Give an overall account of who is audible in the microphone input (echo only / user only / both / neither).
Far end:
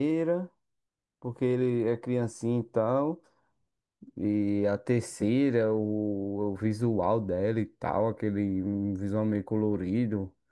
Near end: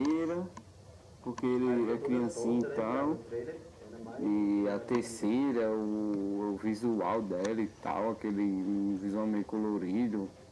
both